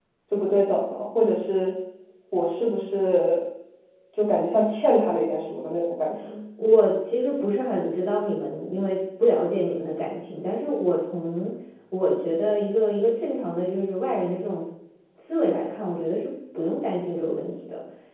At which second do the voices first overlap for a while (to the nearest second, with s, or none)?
none